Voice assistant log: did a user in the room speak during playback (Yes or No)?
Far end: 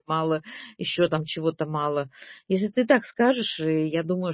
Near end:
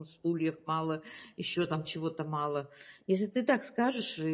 No